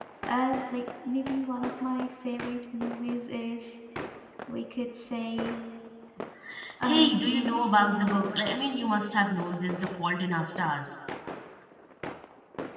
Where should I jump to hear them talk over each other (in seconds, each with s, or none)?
6.8 s